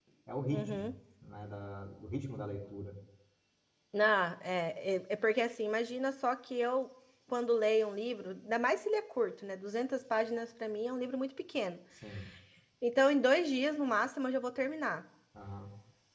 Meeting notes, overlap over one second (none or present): none